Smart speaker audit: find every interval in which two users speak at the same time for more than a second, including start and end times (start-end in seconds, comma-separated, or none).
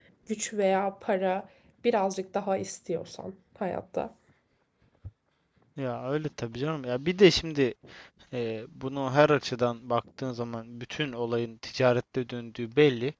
none